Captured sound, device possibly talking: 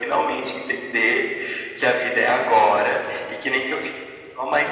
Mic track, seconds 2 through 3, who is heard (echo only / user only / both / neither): echo only